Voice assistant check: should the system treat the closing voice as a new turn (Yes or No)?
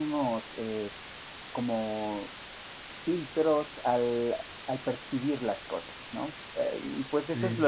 No